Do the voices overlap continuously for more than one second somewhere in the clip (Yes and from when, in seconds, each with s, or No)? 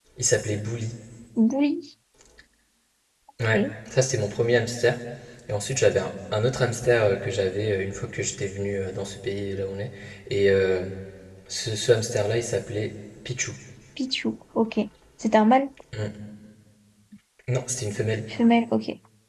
No